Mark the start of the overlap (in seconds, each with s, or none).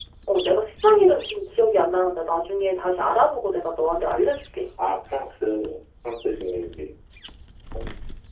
none